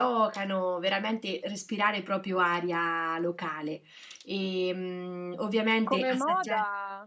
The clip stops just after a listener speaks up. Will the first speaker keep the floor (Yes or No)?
No